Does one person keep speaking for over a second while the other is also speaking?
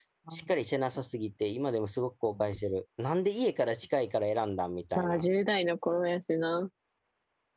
No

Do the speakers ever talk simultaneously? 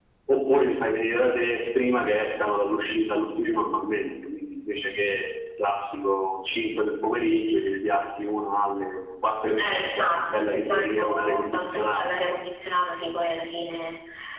Yes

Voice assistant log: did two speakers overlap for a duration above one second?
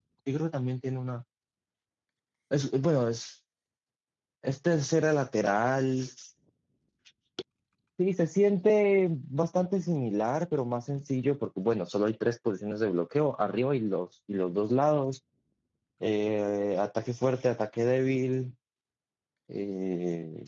No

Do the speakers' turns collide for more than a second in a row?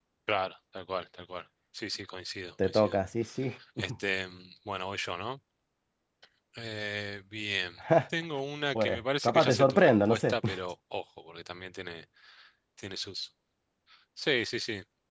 Yes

